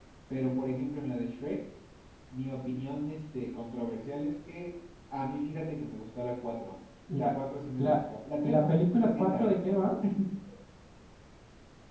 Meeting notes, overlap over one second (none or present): present